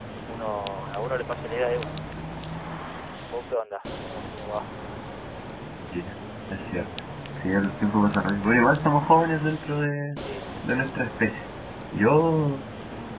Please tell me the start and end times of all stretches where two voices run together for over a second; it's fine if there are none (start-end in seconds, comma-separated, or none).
none